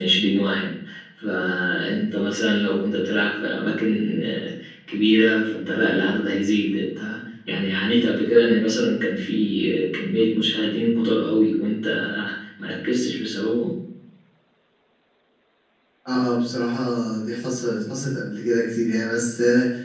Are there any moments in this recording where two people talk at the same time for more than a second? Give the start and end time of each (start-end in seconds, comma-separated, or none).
none